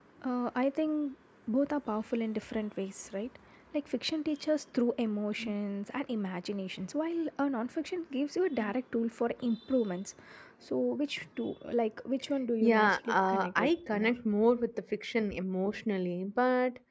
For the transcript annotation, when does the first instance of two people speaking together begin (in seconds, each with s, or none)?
12.6 s